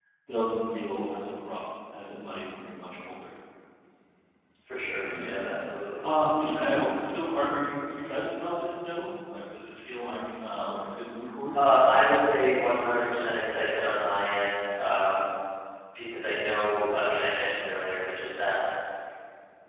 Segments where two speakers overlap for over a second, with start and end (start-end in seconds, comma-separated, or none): none